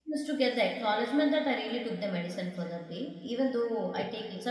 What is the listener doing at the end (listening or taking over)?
listening